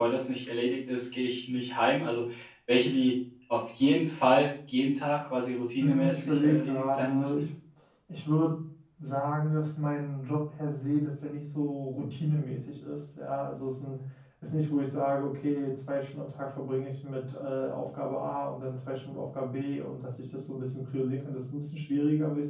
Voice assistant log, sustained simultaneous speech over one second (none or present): present